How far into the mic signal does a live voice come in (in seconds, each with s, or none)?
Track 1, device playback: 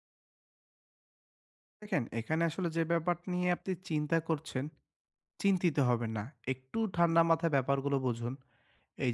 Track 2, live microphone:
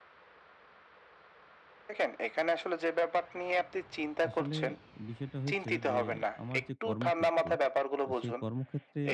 4.3 s